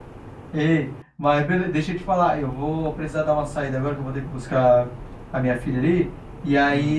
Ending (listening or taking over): listening